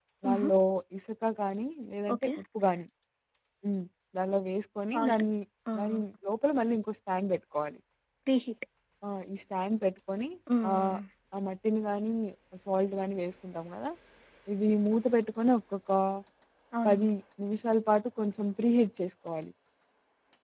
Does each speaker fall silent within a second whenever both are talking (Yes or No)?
Yes